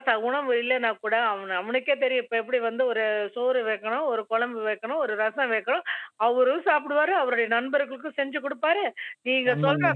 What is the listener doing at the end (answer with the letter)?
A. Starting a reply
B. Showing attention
B